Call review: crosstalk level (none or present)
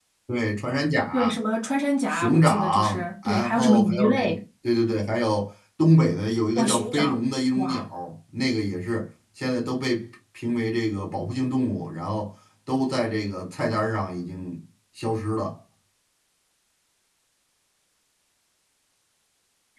present